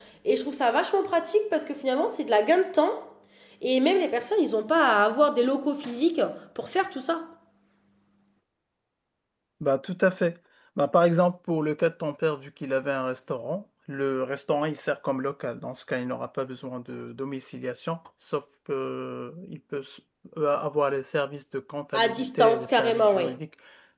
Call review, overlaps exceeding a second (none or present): present